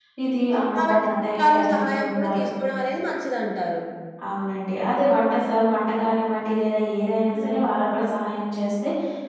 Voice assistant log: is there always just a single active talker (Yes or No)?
No